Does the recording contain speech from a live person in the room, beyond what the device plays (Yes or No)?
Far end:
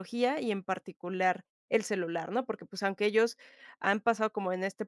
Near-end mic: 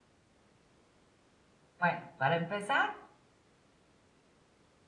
Yes